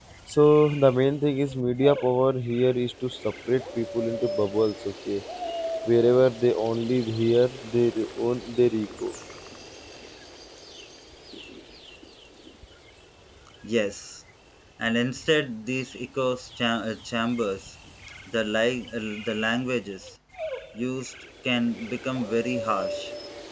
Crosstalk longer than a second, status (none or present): none